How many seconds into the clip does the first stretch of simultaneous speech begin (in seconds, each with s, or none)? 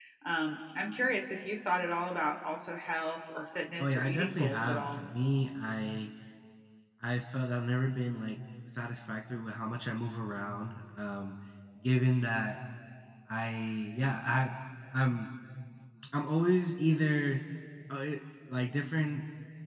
3.8 s